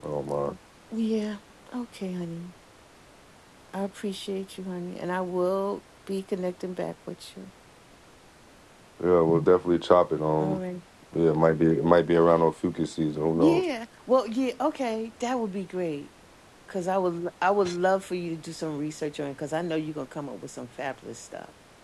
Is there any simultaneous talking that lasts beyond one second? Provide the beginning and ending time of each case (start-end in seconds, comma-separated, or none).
none